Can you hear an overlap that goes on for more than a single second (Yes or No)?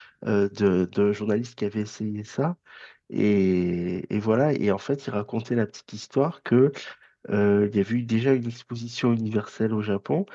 No